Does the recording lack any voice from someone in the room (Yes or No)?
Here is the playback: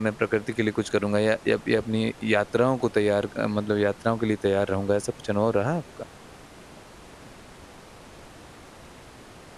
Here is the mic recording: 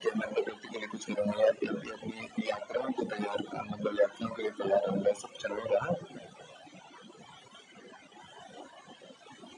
Yes